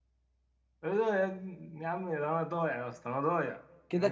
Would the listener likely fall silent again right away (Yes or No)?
No